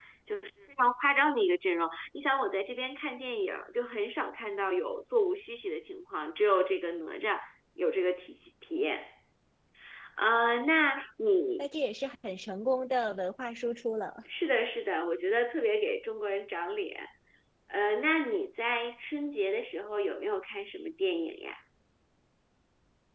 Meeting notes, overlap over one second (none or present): none